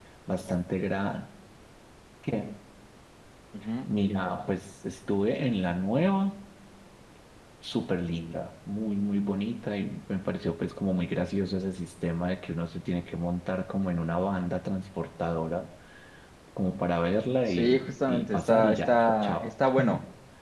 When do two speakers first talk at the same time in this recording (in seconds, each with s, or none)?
17.5 s